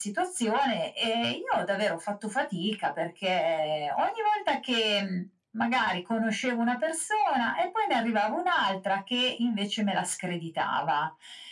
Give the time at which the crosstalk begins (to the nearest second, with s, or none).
none